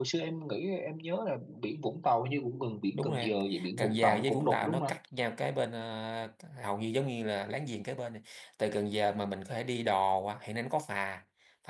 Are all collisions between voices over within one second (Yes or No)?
No